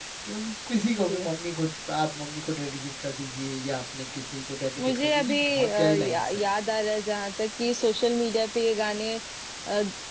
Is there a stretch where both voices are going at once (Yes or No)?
Yes